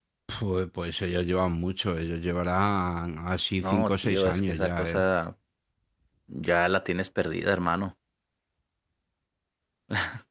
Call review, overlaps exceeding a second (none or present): present